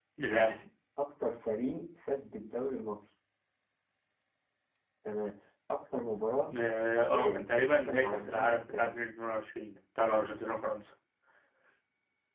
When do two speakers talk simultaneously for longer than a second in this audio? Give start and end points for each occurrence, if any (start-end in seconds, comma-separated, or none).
7.1-8.9